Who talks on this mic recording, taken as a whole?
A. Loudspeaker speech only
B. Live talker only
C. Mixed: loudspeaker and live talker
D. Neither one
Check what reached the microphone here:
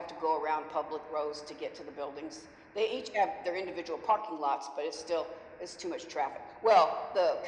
A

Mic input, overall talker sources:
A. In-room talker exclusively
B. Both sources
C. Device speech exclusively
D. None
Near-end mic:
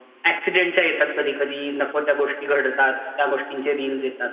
C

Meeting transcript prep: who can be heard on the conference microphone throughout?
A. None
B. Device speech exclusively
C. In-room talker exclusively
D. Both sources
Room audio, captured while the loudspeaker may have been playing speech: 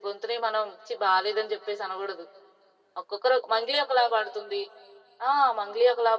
B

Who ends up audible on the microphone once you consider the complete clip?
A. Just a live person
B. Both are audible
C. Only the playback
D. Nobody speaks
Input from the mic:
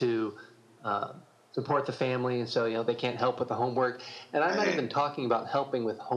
B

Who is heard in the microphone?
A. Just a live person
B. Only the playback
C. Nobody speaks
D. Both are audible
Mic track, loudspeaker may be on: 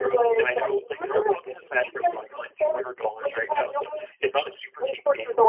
B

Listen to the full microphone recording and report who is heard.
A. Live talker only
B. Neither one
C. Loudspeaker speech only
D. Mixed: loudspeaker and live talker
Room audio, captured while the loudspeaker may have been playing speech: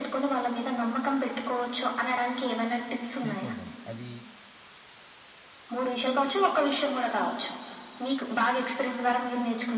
D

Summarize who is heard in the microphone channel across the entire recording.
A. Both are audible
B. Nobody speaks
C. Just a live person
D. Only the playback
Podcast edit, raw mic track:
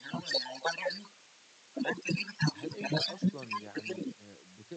A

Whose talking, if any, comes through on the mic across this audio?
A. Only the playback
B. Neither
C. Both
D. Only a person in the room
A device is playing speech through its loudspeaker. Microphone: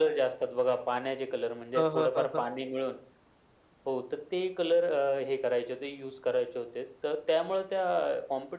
C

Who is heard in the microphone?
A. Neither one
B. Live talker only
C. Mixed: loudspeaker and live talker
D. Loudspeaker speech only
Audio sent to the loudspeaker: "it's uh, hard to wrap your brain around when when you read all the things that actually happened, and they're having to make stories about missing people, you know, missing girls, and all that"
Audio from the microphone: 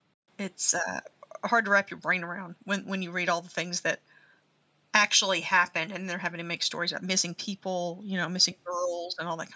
D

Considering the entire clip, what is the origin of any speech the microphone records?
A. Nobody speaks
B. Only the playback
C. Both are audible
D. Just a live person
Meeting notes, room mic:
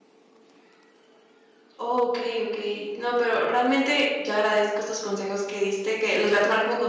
D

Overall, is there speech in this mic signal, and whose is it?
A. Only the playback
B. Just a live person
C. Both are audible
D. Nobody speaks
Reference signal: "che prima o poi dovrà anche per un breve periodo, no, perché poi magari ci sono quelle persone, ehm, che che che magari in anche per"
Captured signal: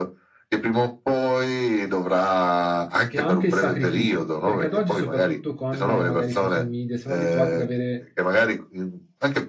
C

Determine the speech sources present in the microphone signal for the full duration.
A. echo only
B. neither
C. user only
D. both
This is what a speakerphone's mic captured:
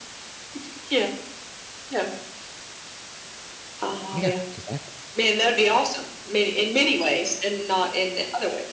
D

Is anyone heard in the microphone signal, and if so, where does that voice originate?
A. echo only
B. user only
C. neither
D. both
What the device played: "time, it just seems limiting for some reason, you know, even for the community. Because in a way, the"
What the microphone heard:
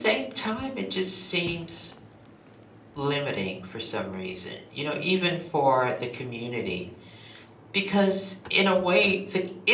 A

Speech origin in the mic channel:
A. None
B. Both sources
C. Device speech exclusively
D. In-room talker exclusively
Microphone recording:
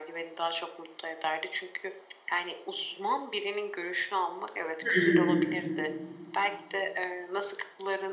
B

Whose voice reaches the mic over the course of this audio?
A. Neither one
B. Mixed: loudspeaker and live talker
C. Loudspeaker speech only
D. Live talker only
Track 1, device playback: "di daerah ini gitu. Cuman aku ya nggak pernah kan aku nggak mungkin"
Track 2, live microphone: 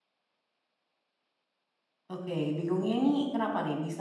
D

